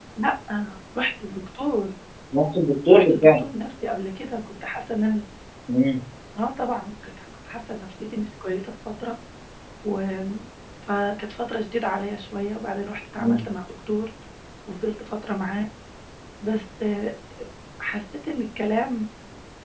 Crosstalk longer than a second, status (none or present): none